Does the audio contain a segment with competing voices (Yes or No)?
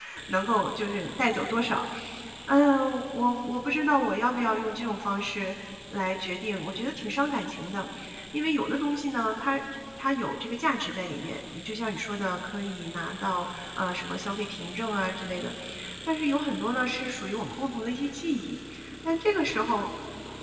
No